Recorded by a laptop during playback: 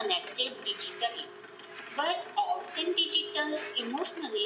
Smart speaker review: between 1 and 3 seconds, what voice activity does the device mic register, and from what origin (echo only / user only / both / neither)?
echo only